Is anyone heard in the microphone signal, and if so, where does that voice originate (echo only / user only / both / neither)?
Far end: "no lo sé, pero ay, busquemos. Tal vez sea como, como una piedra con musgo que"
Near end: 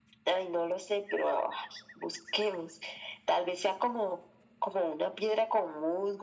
echo only